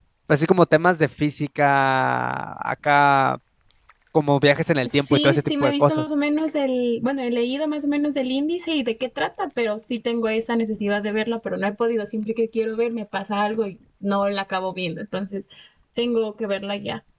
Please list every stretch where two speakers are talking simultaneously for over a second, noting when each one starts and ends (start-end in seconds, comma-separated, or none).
4.8-6.1